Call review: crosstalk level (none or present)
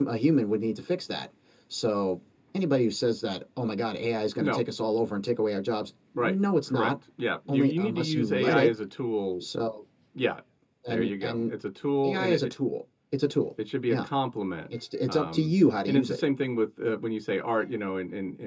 present